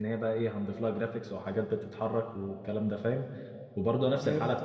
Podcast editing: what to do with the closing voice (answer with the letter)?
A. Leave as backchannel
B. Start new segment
A